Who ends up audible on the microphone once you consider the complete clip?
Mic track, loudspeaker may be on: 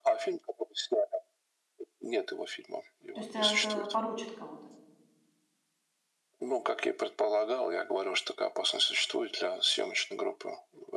both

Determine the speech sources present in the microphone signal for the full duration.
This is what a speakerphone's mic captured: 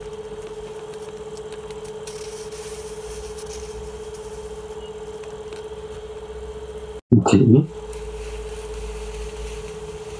user only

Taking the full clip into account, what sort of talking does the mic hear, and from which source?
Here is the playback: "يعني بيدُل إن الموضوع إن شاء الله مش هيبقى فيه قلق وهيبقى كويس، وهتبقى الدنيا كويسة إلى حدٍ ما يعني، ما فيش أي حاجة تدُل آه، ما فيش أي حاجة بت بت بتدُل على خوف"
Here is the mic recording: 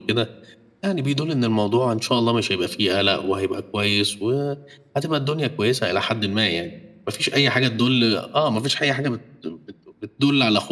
echo only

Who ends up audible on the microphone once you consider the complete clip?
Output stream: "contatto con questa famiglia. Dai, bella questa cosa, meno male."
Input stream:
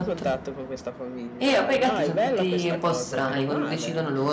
both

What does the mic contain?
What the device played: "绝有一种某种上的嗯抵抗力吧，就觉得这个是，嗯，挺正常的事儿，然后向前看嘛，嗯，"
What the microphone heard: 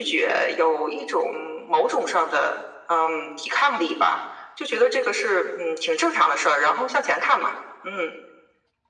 echo only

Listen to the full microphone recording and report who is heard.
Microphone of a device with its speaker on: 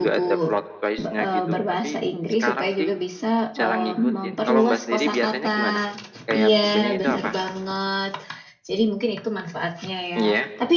both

